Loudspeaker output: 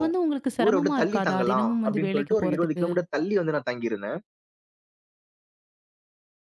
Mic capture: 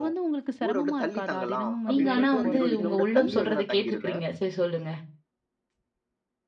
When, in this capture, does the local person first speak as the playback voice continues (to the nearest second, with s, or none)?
2 s